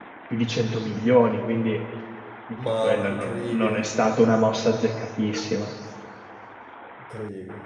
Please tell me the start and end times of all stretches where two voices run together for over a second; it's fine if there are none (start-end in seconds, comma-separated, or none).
2.5-3.8